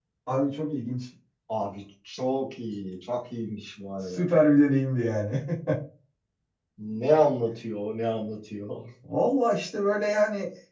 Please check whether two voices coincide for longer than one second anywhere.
No

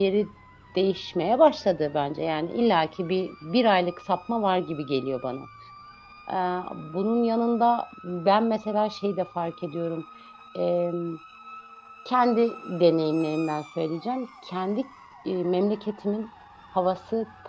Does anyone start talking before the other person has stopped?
No

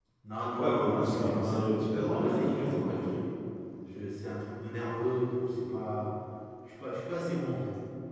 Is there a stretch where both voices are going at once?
Yes, from 0.6 s

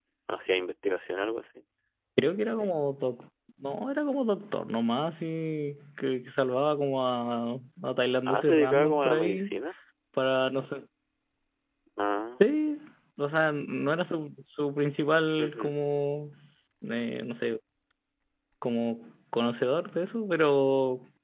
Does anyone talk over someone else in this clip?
Yes, from 8.3 s

